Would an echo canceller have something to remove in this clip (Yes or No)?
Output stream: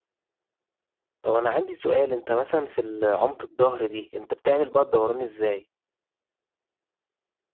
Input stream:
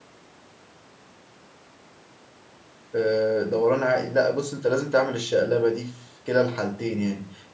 No